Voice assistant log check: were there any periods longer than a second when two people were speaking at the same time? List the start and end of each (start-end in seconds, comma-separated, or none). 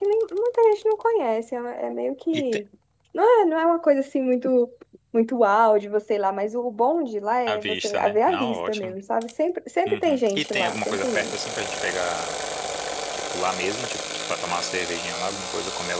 7.5-8.9, 9.9-11.4